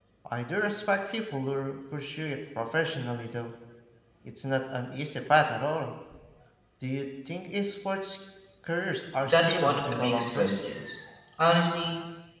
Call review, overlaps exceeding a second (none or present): present